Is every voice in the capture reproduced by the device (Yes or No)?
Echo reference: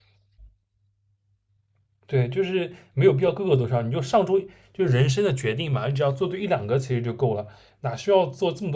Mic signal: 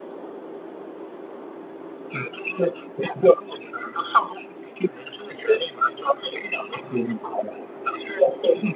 Yes